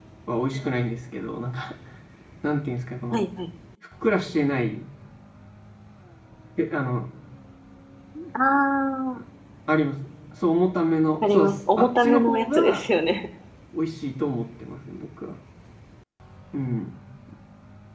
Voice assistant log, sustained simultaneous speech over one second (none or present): present